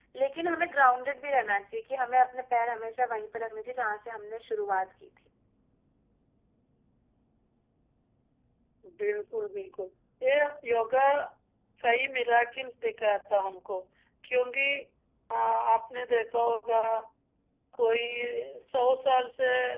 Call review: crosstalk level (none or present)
none